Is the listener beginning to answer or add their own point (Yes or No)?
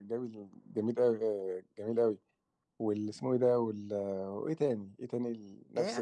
Yes